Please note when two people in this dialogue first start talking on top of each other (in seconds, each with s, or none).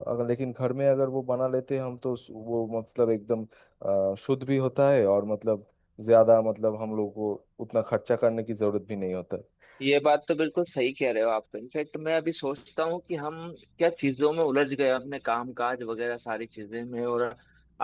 none